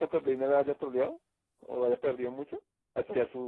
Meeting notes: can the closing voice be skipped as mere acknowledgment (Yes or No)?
No